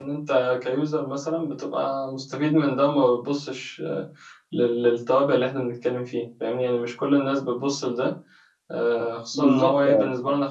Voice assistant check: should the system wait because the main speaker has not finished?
Yes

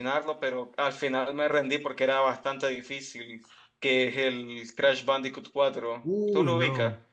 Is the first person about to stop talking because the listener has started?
Yes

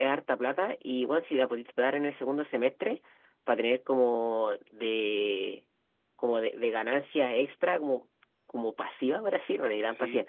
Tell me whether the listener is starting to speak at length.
No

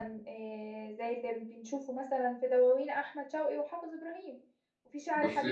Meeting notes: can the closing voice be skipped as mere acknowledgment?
Yes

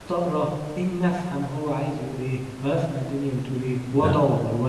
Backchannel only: Yes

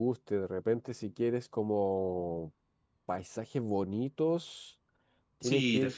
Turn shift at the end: Yes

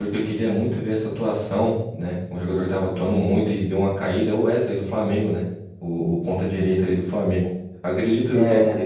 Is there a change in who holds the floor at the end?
No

